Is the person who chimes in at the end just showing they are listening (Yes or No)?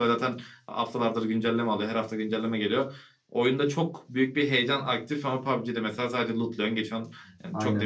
Yes